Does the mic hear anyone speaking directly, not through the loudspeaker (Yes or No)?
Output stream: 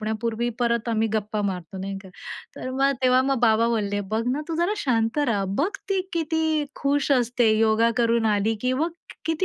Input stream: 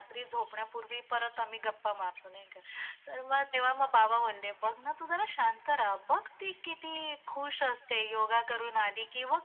No